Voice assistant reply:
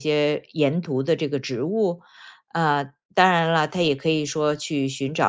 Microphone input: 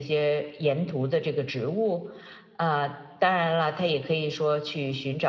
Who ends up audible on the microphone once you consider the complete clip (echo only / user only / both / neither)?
echo only